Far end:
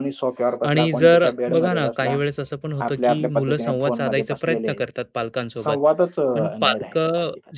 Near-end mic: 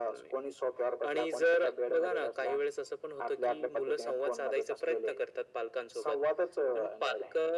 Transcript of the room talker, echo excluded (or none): none